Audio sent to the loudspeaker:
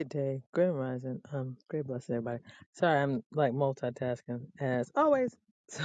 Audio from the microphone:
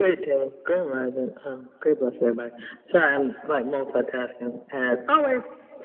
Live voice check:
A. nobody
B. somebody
A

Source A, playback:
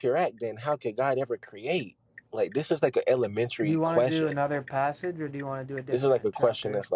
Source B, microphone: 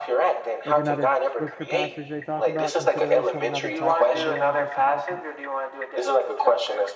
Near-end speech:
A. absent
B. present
B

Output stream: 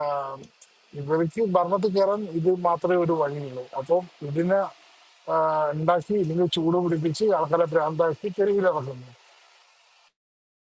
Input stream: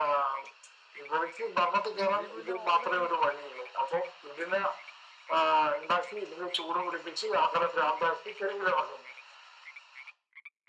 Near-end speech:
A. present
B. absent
A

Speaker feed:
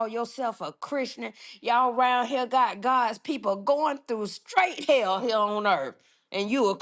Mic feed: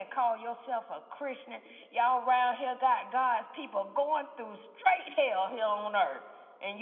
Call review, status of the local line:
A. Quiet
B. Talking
A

